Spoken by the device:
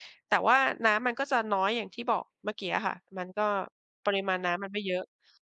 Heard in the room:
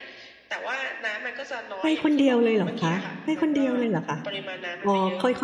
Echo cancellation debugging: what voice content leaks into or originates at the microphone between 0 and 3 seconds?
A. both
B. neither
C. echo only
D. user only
A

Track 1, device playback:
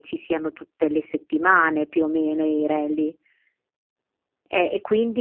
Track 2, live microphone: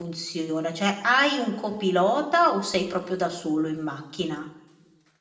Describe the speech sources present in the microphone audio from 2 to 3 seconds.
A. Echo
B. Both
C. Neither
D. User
D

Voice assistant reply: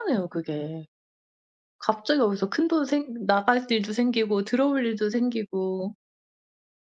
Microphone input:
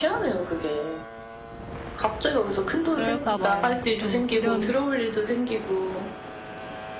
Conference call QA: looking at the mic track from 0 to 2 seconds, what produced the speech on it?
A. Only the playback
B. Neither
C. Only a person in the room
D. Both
A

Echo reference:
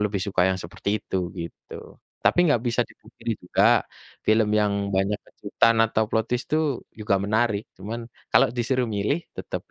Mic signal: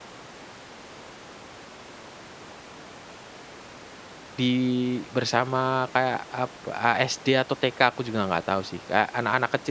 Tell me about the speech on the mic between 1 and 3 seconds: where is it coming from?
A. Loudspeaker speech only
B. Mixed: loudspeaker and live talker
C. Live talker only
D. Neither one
D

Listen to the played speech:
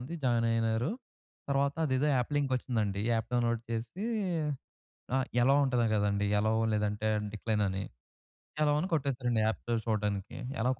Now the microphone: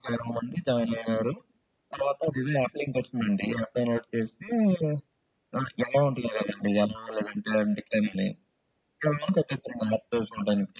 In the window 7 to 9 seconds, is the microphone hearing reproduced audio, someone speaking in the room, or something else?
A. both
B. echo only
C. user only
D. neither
B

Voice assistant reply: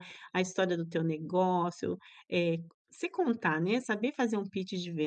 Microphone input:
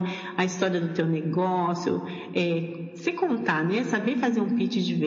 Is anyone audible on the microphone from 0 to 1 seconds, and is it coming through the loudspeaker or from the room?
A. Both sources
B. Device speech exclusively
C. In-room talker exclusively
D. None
B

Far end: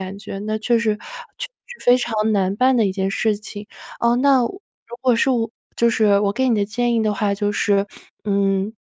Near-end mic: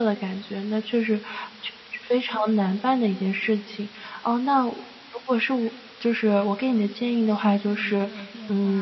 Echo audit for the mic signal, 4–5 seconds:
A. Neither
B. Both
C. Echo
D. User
C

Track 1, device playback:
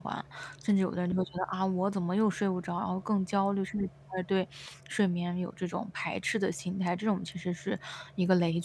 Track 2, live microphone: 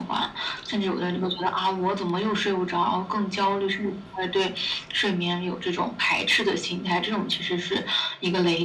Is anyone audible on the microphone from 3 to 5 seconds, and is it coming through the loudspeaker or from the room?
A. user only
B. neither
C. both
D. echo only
D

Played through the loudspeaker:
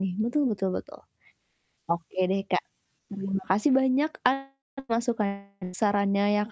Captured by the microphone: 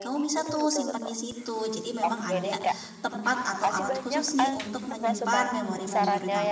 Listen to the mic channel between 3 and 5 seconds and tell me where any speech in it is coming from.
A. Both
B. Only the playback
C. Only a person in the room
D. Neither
A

